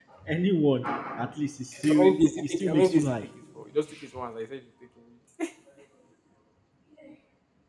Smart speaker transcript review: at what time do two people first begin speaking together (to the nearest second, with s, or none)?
2 s